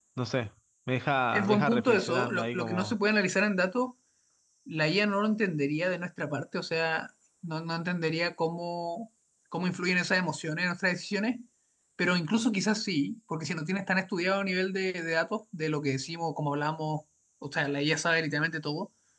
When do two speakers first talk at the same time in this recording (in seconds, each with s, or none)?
1.3 s